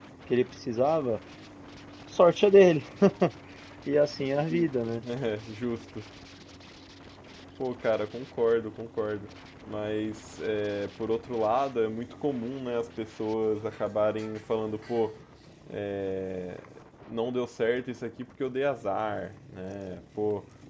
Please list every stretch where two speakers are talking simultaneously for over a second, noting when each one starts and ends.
none

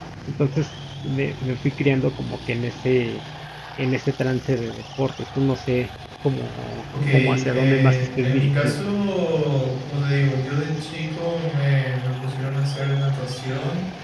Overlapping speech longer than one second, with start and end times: 7.1-8.8

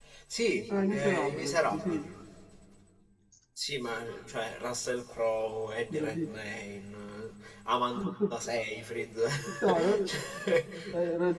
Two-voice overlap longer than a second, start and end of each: 0.7-2.0

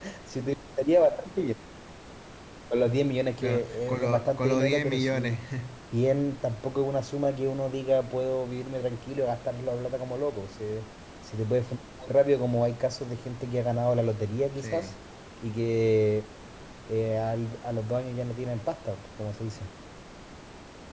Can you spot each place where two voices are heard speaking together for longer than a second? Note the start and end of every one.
3.4-5.4

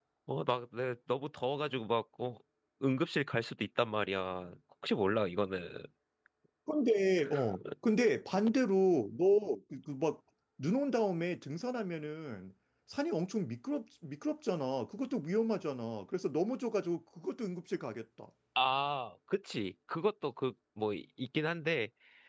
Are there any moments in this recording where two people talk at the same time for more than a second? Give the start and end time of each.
none

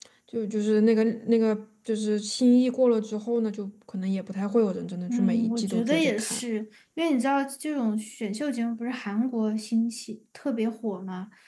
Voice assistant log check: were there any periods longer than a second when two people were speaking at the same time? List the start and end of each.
5.1-6.4

